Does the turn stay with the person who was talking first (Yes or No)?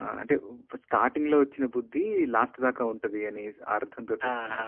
No